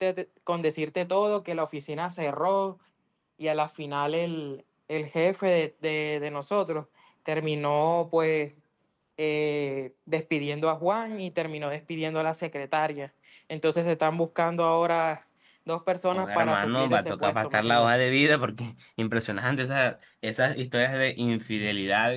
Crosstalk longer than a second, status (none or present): present